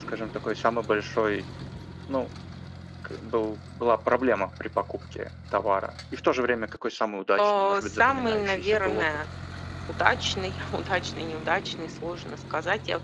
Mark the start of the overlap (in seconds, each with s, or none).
7.4 s